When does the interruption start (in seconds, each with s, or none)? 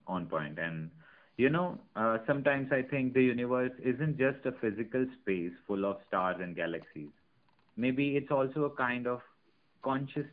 none